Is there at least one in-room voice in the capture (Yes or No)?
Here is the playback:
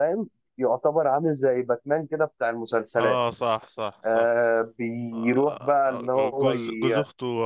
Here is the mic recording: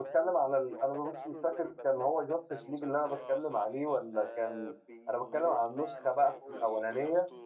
Yes